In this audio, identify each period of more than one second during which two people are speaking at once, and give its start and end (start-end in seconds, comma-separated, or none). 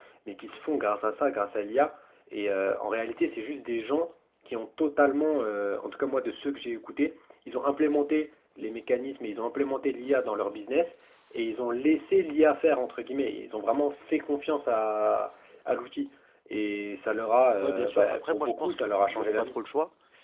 17.6-19.6